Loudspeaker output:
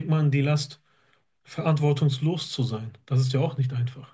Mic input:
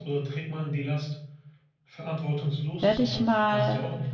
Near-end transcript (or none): werde ich mal